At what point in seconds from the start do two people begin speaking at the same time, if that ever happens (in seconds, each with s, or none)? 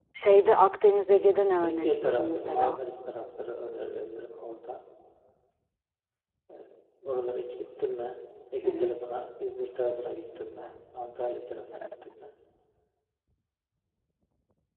1.4 s